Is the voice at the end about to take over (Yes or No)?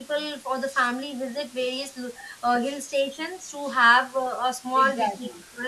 Yes